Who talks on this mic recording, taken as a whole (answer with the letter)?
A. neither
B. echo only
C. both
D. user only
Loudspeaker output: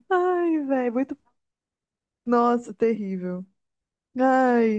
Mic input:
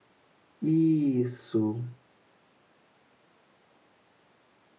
D